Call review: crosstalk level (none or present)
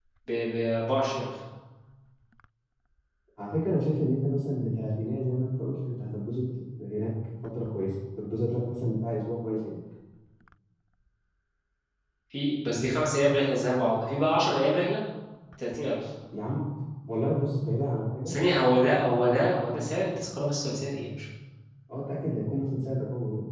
none